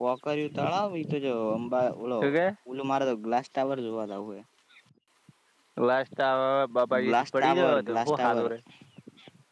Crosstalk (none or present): present